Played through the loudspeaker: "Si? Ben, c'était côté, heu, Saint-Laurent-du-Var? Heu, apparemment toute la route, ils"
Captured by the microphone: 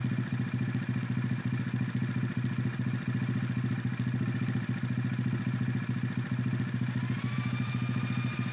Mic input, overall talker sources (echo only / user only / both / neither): neither